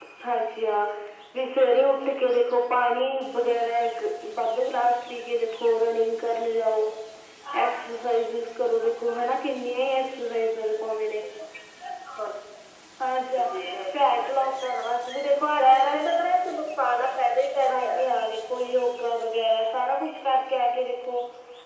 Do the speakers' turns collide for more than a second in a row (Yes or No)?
No